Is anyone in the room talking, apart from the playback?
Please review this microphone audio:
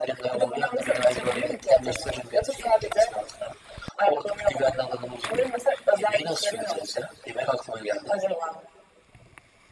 No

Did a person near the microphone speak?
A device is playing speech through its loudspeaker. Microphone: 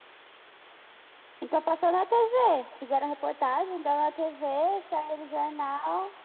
No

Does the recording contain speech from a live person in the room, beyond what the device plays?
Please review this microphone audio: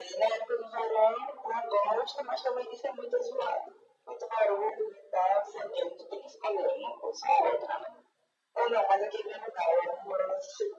No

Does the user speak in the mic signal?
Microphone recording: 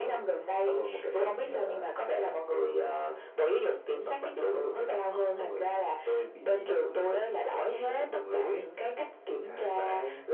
No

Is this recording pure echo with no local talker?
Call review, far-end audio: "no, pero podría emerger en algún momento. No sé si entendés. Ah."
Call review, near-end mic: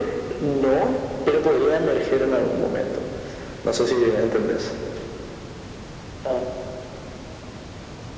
Yes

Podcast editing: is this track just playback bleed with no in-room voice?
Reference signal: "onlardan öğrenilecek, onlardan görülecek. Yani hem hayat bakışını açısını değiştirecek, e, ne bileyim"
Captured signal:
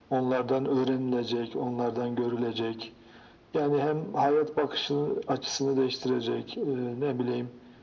Yes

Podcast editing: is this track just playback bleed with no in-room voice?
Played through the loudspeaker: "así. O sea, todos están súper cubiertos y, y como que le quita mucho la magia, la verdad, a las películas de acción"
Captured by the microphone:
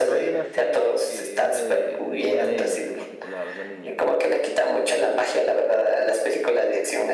No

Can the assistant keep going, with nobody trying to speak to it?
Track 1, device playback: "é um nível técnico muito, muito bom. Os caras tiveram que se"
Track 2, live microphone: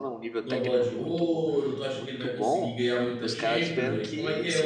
No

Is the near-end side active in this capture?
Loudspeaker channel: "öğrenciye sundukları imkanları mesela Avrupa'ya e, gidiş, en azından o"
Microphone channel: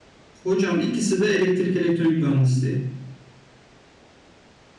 Yes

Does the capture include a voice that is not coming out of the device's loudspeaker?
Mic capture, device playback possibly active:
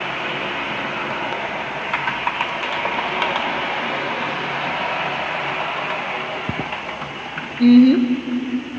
Yes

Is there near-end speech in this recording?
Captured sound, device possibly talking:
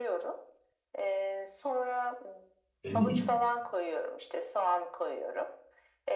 Yes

